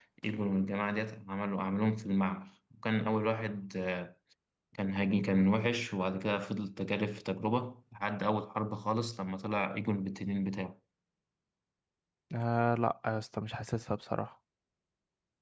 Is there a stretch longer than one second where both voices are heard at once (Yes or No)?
No